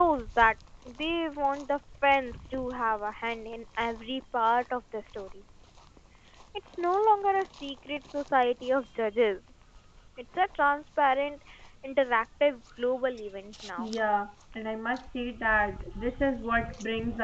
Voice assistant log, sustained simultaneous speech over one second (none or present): none